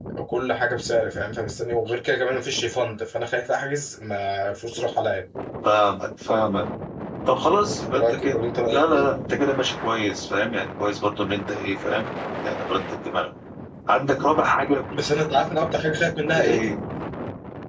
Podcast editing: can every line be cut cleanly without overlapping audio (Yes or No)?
No